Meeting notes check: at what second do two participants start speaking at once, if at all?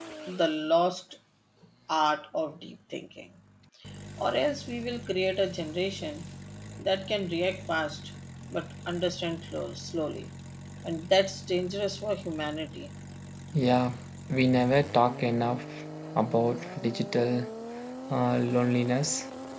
none

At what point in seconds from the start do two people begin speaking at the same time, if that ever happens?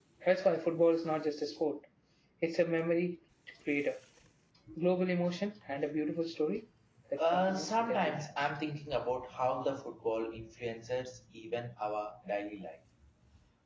7 s

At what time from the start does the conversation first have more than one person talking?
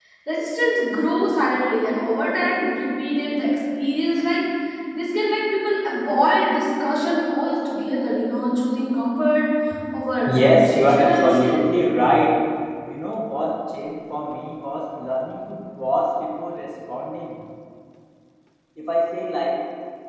10 s

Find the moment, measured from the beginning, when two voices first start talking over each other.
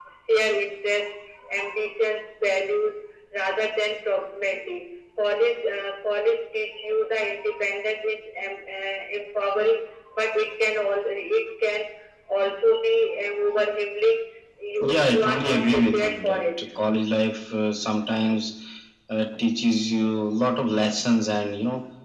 15 s

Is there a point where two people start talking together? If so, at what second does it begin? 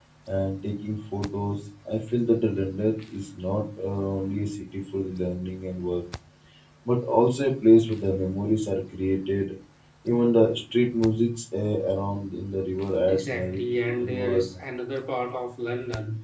13 s

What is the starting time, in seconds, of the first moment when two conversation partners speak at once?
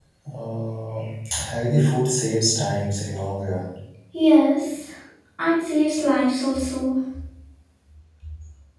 none

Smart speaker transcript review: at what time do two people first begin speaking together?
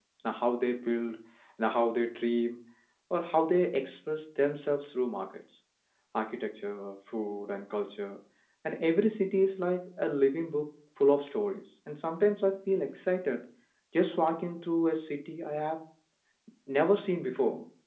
none

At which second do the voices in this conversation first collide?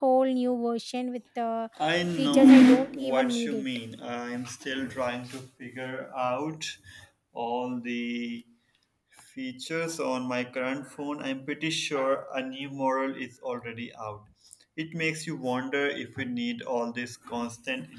2 s

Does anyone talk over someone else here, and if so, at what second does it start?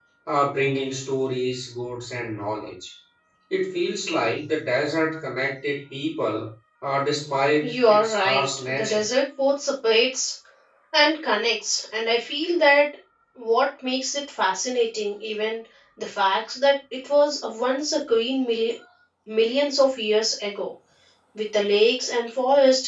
8 s

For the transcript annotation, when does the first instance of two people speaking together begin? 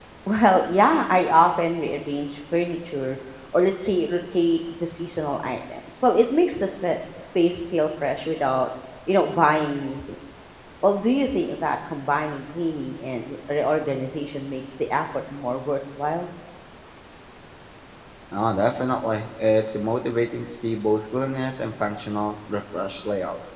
none

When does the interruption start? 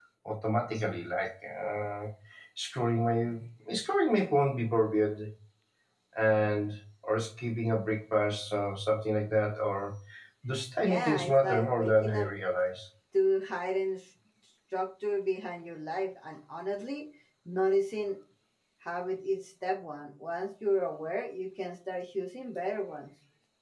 11 s

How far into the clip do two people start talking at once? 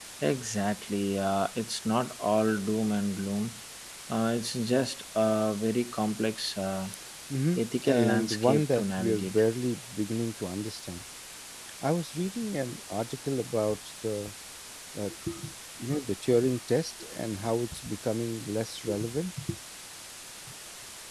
8 s

